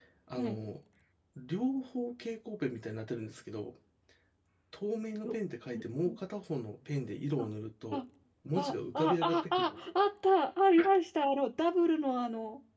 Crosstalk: present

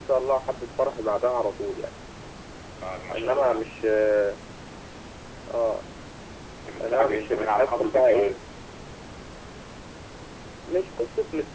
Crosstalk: present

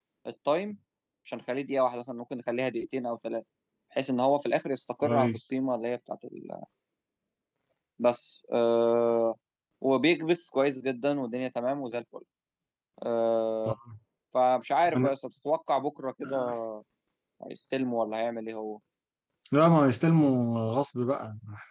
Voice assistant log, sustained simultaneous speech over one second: none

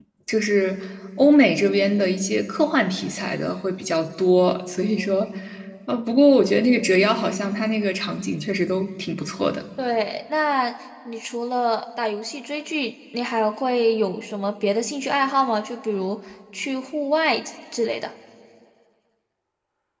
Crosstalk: none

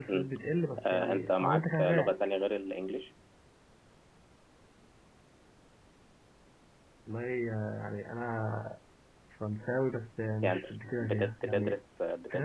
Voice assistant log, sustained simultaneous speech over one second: present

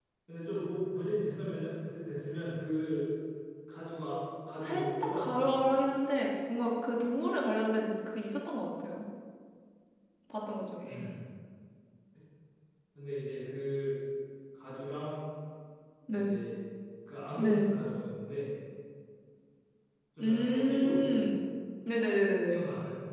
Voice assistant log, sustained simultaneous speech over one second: present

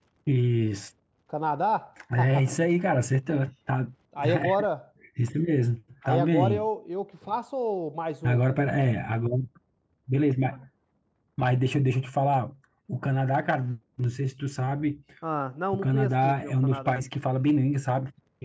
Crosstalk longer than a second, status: present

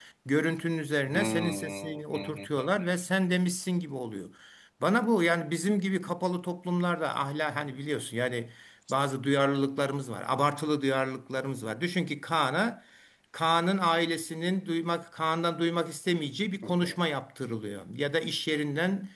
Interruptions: present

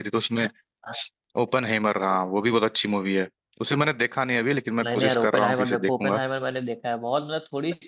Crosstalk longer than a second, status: present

